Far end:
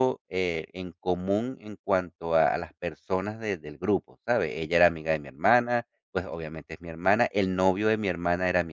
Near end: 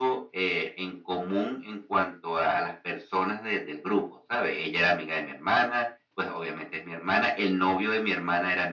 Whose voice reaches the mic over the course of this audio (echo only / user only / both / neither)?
echo only